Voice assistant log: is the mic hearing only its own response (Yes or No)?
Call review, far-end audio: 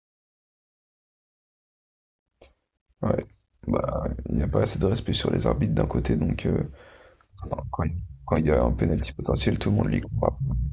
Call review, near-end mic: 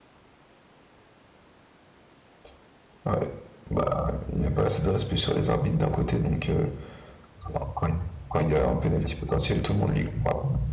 Yes